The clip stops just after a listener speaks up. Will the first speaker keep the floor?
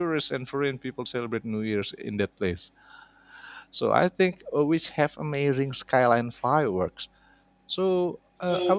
Yes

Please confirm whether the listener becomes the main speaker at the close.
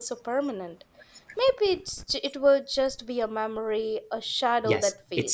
Yes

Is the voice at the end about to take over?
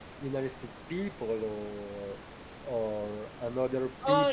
No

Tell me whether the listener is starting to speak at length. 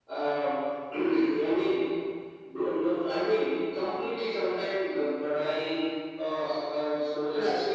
No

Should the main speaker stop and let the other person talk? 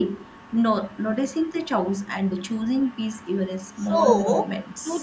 Yes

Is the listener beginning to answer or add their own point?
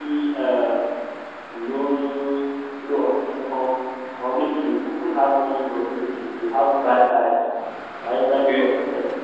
No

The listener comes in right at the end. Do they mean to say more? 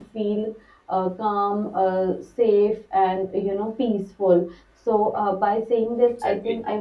No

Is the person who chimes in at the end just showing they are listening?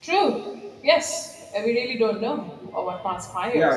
No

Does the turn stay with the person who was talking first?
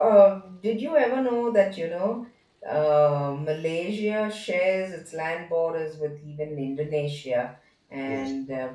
Yes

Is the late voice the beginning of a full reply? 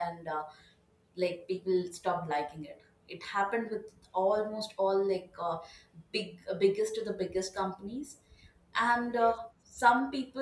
No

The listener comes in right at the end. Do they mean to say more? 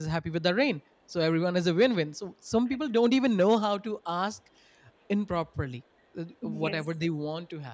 No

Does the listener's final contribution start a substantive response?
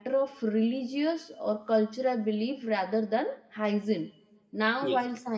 No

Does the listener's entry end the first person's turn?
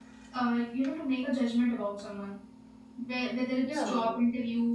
No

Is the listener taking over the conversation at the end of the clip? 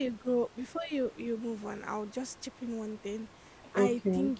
No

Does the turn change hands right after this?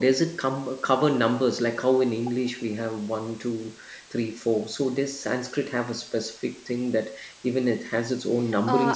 Yes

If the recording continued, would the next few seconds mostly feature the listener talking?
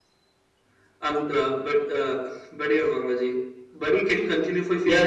Yes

